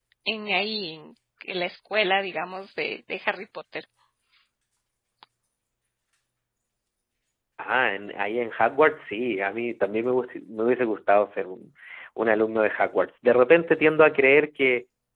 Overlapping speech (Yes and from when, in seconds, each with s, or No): No